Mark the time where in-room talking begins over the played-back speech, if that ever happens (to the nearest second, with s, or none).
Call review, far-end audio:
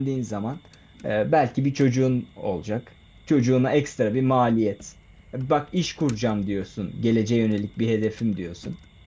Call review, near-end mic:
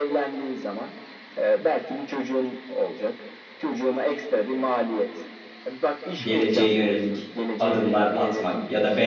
6 s